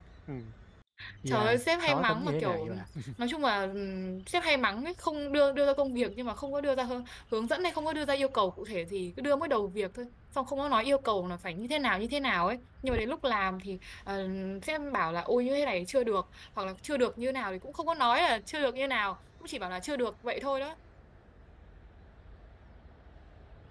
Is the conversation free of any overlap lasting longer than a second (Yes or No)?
No